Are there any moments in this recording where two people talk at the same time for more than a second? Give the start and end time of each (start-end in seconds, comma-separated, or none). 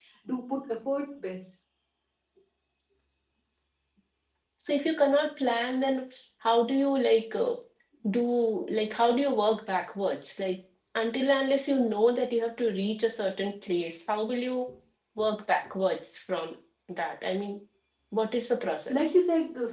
none